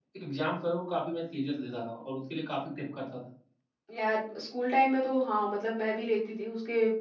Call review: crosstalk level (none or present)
none